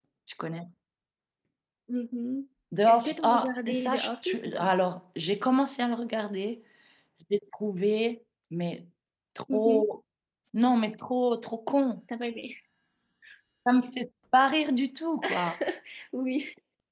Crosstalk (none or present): present